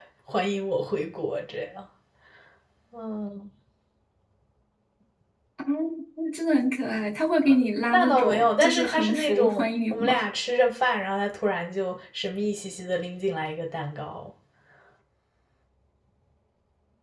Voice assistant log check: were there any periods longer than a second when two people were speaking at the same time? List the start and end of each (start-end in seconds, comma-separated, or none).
7.9-10.2